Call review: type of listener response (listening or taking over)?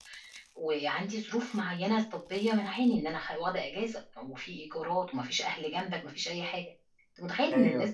listening